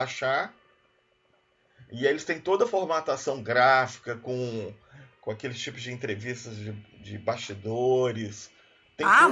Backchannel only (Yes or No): No